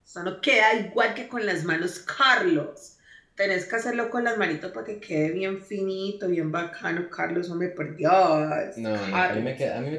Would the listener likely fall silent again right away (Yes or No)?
No